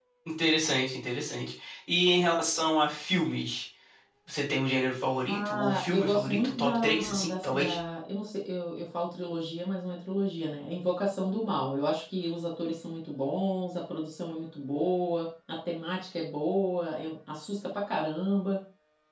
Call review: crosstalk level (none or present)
present